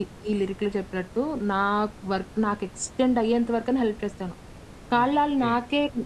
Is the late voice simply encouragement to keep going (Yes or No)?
Yes